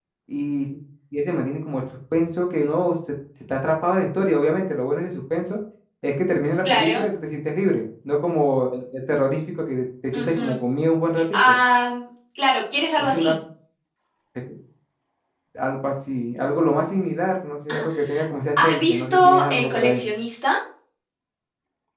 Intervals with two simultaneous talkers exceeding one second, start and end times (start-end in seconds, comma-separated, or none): 18.6-20.0